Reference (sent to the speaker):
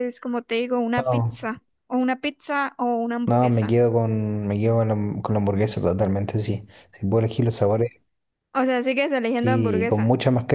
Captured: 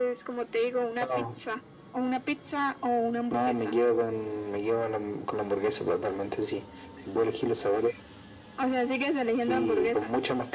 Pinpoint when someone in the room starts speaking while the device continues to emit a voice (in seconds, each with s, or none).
none